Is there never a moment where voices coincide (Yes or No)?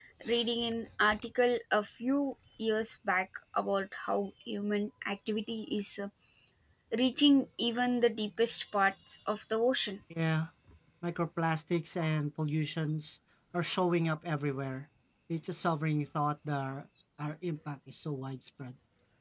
Yes